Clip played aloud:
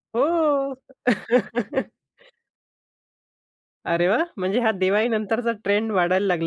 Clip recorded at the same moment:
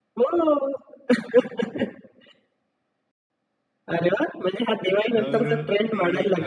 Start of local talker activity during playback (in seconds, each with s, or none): 5.2 s